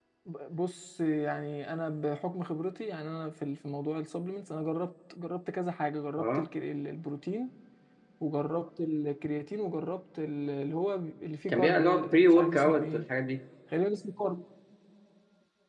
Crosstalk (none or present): present